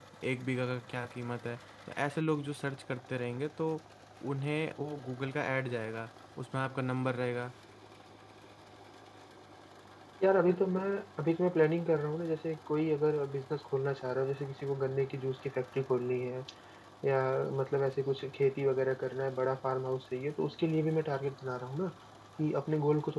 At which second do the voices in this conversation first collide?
none

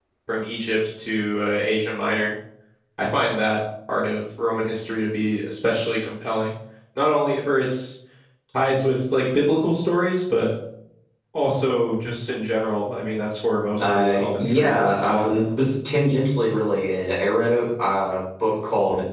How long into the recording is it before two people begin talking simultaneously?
14 s

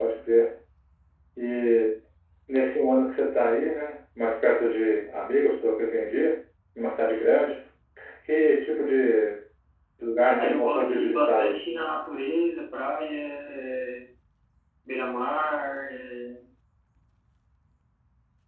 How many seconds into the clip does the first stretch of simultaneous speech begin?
10 s

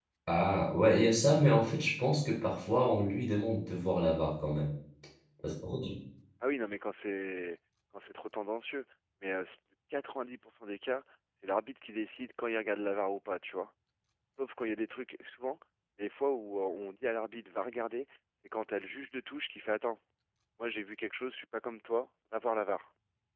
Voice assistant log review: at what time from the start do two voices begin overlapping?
none

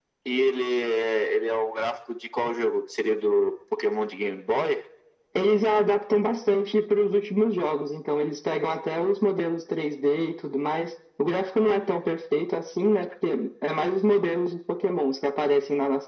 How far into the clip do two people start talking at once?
none

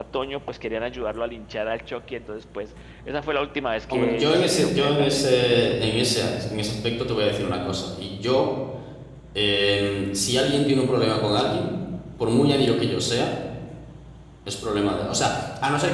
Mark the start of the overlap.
4 s

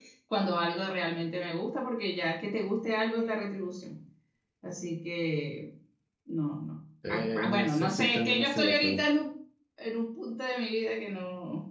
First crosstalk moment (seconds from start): 7 s

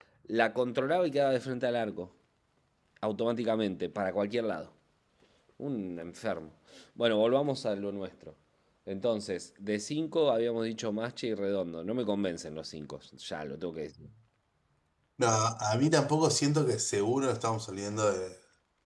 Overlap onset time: none

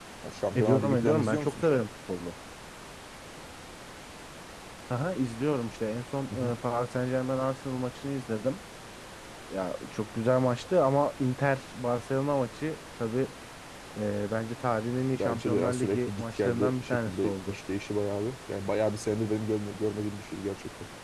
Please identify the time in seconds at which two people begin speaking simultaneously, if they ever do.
1 s

